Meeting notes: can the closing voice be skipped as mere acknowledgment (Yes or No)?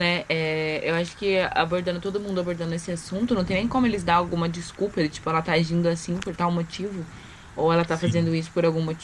Yes